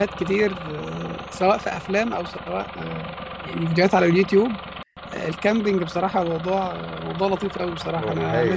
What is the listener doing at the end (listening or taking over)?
listening